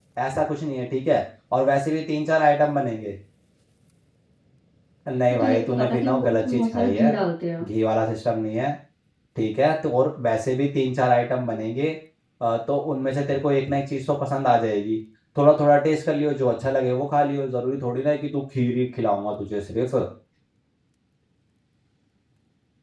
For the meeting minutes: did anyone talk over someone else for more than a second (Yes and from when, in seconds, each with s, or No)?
Yes, from 5.3 s